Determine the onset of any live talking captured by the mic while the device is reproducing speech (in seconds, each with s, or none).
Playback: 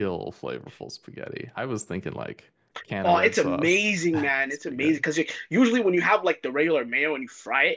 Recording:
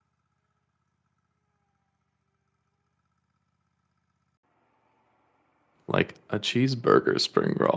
5.9 s